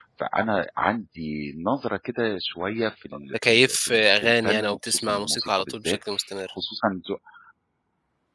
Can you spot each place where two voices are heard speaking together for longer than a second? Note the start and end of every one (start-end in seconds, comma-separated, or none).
3.3-6.0